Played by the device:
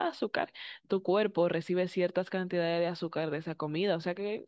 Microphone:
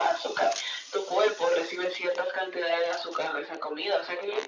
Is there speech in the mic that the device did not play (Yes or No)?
No